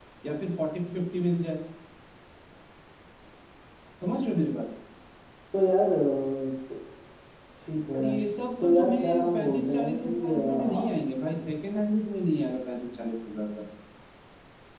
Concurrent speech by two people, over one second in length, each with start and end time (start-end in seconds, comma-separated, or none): 8.6-10.8